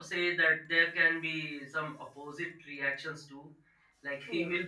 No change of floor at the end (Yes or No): Yes